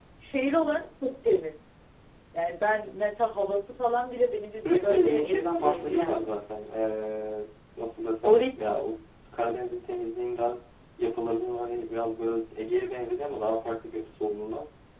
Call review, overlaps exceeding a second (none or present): present